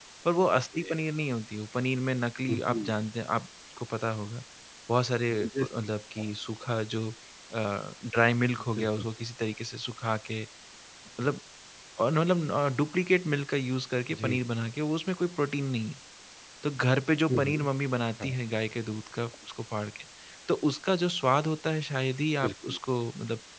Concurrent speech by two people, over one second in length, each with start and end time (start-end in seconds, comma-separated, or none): none